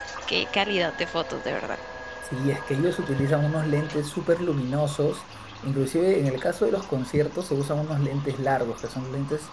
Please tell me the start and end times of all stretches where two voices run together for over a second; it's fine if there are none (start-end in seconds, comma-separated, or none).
none